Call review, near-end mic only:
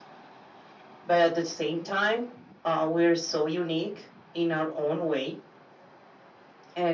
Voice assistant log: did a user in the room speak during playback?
No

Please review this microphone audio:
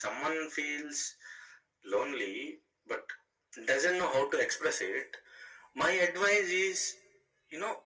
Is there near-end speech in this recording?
No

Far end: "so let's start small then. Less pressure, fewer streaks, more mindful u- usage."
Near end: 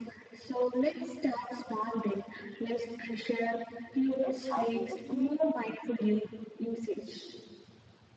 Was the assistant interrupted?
Yes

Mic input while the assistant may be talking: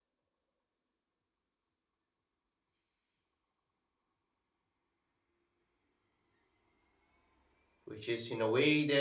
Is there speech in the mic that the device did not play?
Yes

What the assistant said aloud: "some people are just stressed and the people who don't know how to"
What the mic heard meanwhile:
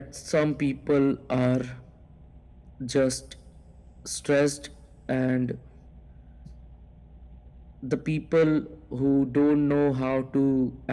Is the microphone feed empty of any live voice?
Yes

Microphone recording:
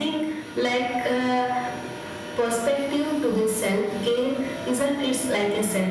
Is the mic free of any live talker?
Yes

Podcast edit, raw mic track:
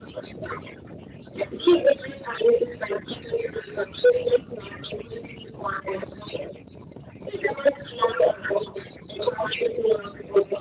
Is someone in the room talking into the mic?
No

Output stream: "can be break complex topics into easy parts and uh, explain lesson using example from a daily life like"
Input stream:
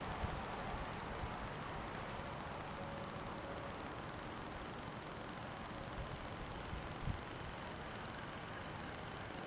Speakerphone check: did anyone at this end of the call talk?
No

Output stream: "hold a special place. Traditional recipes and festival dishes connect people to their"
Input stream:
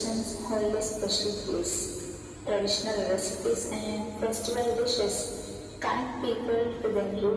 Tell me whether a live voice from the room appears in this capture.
No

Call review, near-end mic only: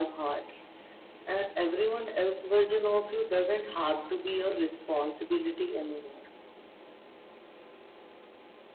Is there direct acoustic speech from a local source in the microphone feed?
No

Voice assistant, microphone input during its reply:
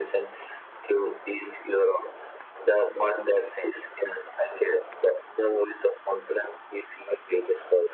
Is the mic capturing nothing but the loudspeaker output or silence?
Yes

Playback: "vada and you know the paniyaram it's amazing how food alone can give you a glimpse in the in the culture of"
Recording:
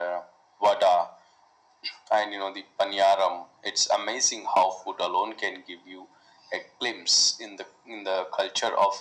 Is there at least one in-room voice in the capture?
No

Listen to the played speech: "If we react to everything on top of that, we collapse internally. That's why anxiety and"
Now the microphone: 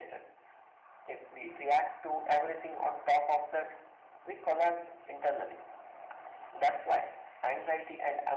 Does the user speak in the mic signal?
No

